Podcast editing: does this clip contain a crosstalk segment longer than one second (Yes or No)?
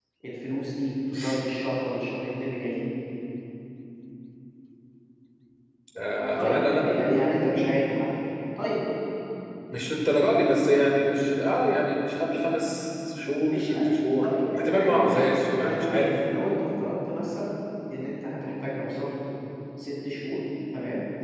Yes